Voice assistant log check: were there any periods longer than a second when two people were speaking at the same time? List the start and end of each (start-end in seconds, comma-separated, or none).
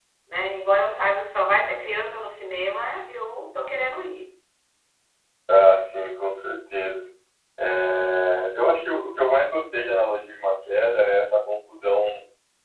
none